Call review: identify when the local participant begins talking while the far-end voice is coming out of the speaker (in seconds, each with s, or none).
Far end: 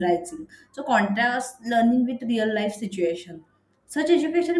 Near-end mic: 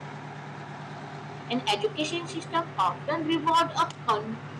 1.5 s